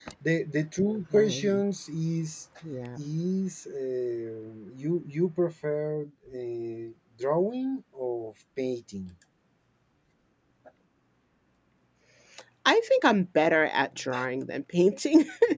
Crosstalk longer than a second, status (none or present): none